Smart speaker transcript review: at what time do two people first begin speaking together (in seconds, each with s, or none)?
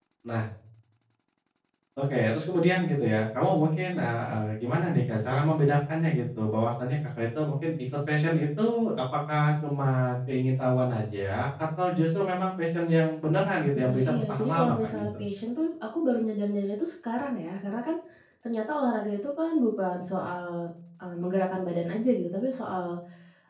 13.7 s